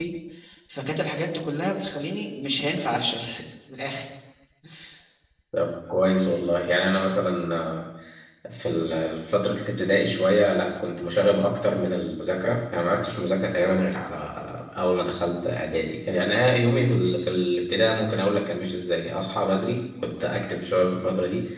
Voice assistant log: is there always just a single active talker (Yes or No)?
Yes